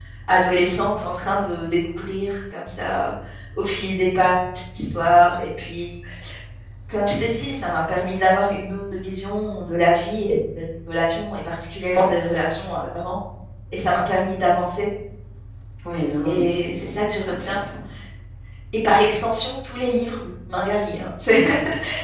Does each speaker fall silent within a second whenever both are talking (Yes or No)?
No